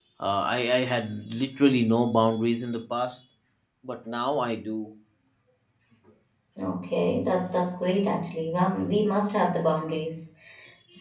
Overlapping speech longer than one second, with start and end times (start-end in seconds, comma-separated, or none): none